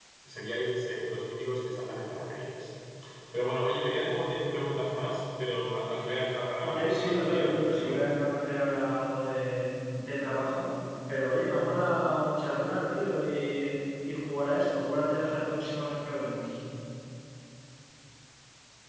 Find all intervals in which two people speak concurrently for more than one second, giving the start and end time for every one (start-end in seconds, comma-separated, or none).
6.7-8.1